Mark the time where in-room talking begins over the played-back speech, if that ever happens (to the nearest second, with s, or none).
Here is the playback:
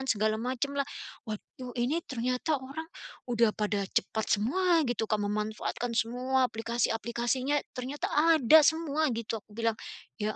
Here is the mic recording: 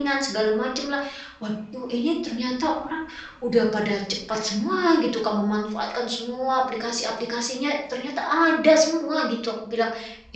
none